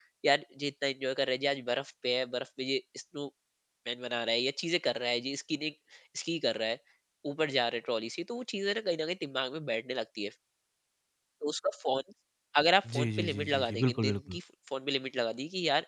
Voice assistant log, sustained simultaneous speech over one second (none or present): present